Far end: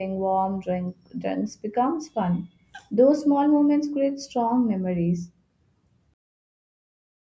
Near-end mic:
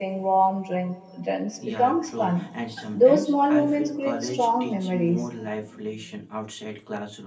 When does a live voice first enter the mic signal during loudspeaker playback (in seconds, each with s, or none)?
1.6 s